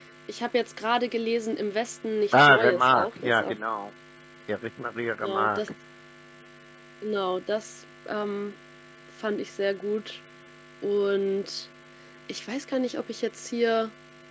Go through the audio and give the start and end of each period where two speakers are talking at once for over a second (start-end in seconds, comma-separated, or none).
2.3-3.5